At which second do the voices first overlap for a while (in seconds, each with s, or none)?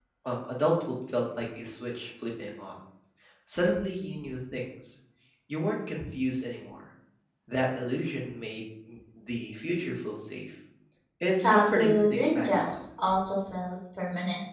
11.4 s